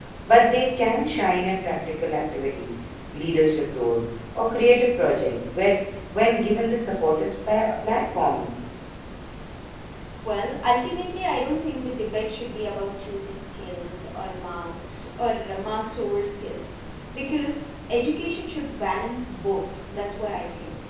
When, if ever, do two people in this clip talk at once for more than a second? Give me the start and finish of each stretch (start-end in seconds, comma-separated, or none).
none